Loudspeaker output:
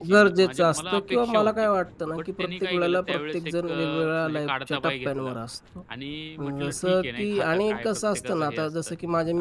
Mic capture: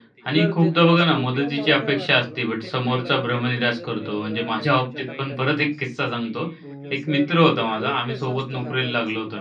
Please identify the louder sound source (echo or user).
user